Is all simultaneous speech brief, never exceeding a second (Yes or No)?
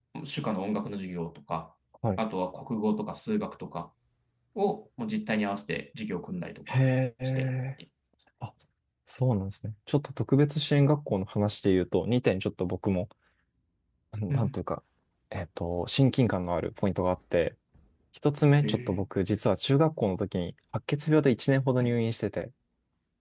Yes